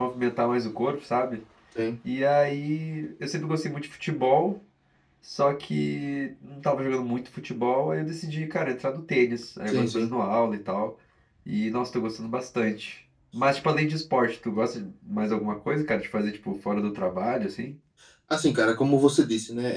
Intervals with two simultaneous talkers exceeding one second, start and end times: none

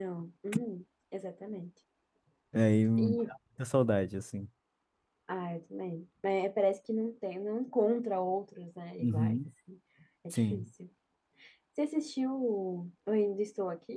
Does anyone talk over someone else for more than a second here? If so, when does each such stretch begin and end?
none

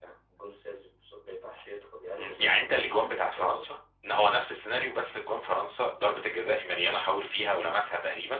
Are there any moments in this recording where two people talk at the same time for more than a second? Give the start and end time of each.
2.2-3.7

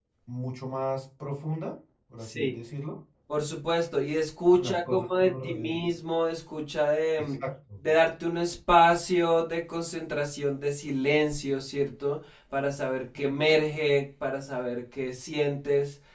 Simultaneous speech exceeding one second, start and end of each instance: 4.5-5.8

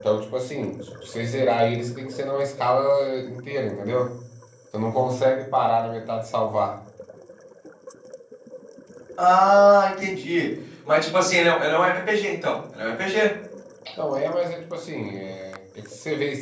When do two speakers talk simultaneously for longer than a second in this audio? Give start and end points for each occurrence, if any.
none

